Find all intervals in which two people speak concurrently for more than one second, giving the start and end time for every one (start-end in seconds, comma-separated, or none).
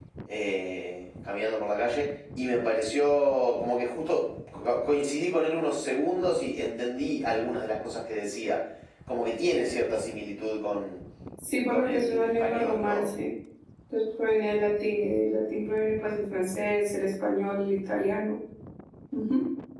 11.7-13.1